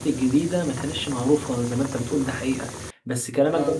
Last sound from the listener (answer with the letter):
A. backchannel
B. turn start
A